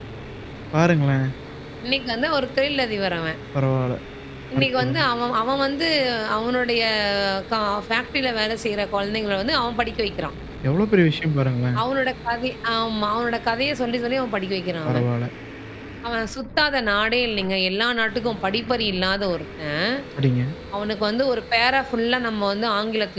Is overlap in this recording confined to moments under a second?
Yes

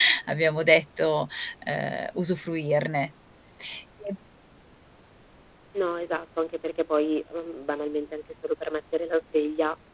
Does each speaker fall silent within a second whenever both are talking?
Yes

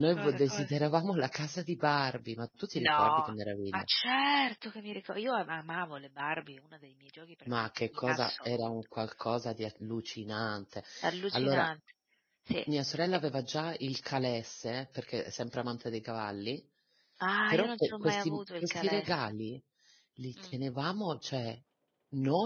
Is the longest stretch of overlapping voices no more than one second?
No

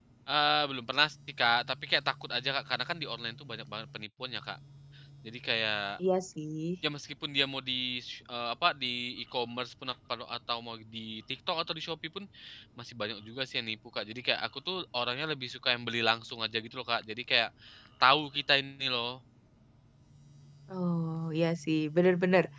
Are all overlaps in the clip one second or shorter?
Yes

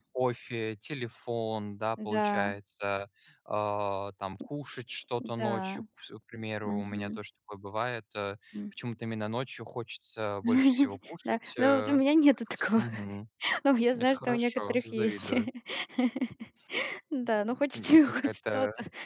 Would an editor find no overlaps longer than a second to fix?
No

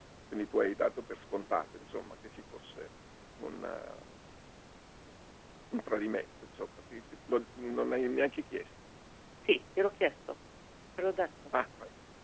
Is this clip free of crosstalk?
Yes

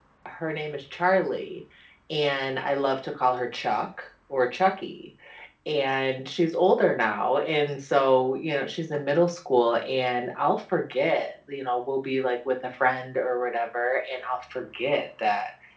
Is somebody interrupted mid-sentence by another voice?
No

